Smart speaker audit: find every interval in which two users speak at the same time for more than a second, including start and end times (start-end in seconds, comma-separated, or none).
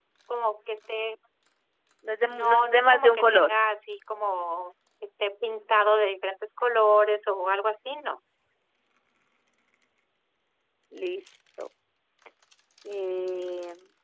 2.3-3.5